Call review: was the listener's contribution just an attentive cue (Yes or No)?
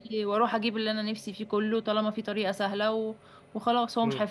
No